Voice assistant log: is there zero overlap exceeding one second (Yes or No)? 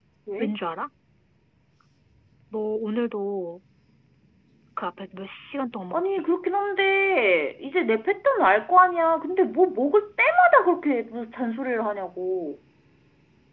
Yes